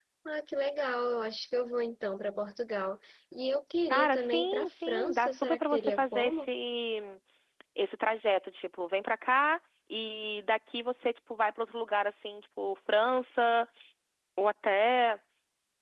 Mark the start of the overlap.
3.9 s

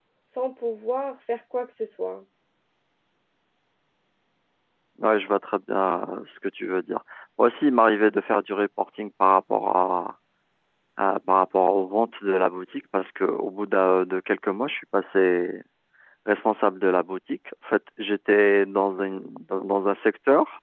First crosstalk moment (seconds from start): none

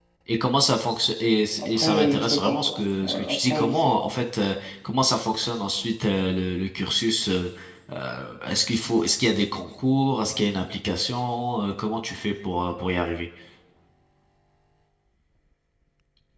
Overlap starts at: 1.6 s

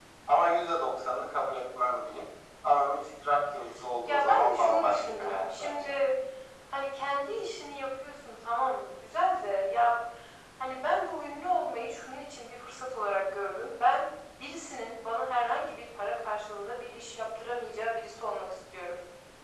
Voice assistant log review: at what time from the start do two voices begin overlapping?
4.1 s

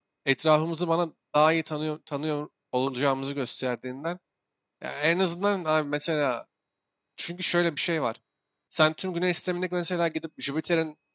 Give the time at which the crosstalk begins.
none

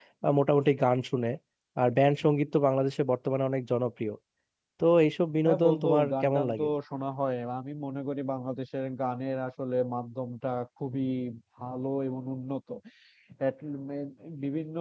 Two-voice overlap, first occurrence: 5.5 s

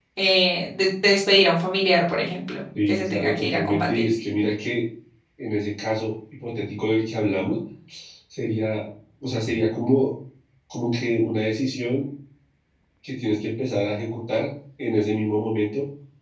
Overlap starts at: 2.8 s

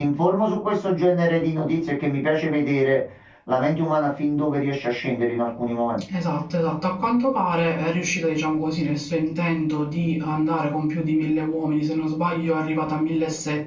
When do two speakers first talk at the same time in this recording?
none

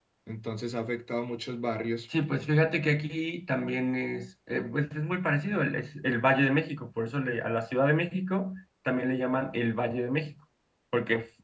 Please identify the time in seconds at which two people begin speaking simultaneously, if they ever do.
none

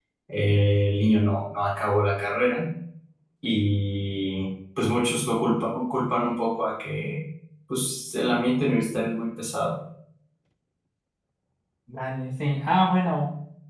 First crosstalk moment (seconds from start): none

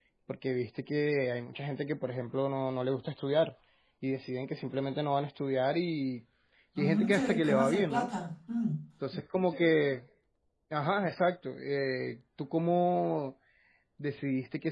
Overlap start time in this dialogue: 6.8 s

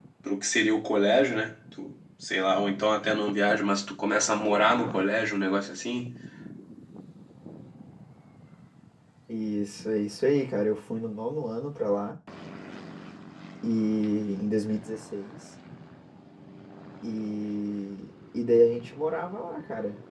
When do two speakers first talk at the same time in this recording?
none

